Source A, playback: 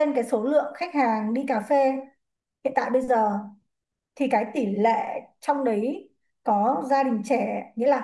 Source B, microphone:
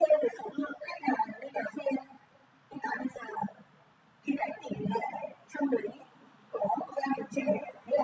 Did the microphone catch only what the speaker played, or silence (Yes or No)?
Yes